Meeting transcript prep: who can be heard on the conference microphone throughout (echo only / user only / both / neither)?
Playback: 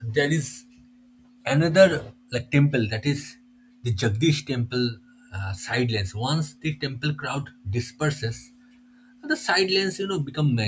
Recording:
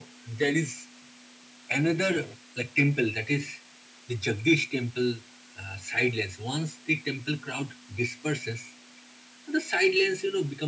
echo only